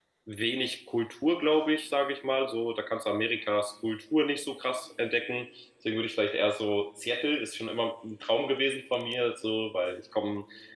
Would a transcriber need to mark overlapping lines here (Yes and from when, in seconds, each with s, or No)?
No